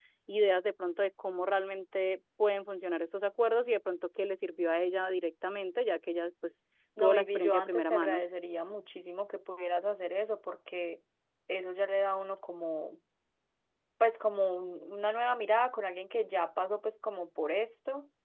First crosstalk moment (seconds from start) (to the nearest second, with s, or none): 7 s